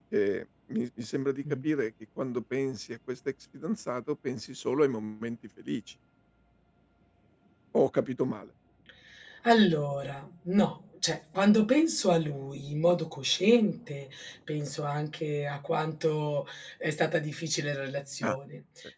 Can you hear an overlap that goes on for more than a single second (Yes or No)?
No